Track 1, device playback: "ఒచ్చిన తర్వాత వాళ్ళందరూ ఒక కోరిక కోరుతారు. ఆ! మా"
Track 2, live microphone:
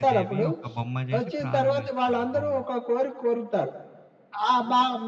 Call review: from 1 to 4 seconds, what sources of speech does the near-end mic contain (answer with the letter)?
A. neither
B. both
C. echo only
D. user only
B